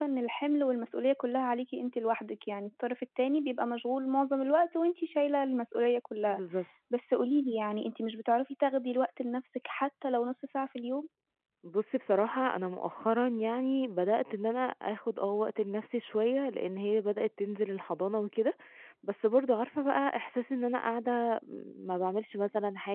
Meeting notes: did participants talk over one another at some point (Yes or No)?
No